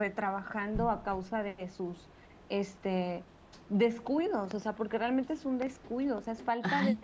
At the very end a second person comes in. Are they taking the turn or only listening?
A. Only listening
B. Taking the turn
B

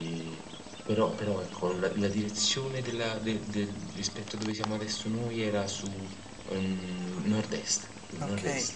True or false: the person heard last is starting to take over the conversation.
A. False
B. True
B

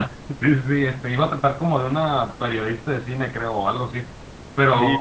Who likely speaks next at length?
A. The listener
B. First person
A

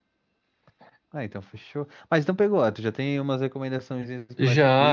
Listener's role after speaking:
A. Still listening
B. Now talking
B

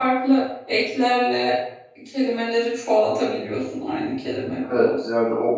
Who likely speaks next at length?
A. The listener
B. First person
A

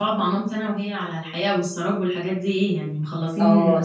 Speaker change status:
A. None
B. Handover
B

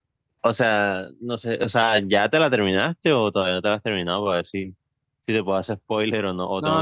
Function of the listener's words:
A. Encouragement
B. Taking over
B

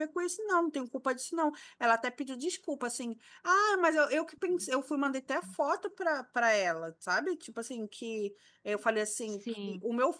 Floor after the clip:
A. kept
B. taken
A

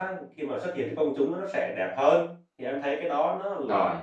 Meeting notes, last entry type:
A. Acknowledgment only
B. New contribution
A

